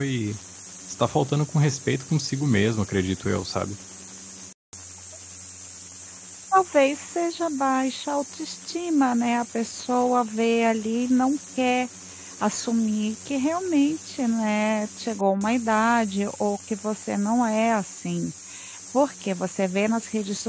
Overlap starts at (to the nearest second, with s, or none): none